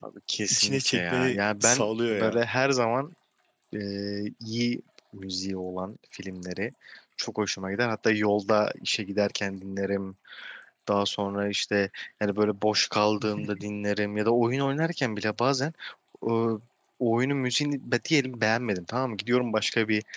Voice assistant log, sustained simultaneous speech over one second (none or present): present